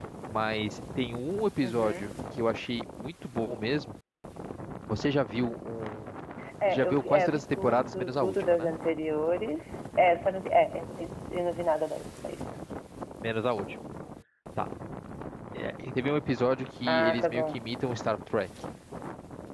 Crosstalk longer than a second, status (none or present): present